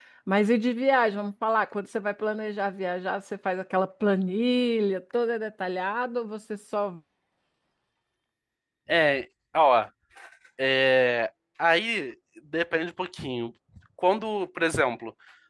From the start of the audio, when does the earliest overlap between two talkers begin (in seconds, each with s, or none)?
none